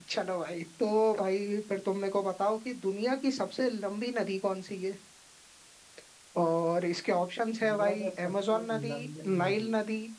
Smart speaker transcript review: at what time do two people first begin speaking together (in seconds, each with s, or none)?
7.6 s